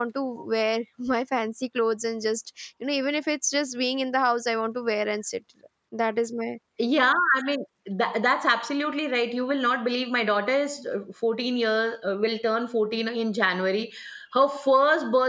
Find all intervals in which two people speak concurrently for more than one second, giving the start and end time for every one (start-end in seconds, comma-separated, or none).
none